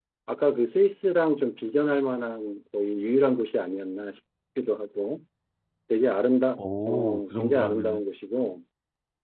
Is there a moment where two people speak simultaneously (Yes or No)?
Yes